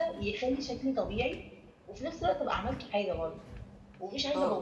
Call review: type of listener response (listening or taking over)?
listening